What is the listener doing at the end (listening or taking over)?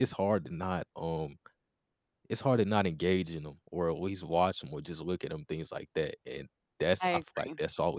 listening